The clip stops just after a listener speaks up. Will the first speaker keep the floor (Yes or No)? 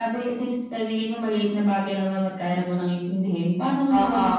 Yes